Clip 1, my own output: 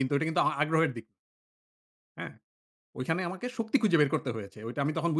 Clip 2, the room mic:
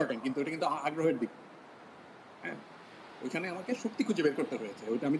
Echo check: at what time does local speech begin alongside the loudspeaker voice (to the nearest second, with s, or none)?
none